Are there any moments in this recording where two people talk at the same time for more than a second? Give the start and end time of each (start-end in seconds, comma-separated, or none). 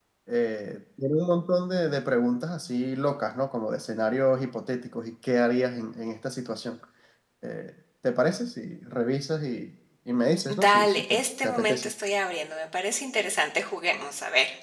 10.5-11.9